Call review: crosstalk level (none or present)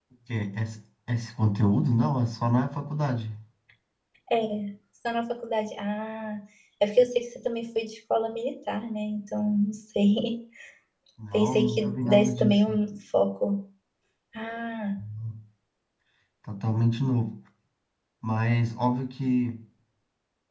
present